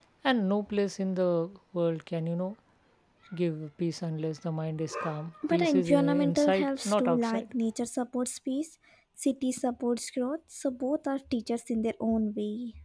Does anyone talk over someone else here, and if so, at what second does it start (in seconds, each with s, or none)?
5.4 s